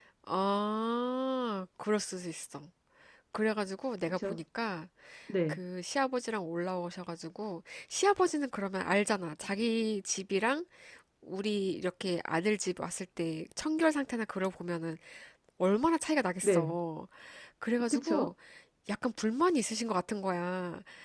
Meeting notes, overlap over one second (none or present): none